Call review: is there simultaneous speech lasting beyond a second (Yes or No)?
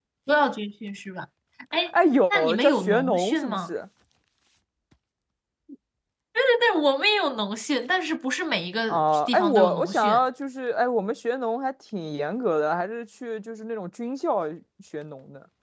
Yes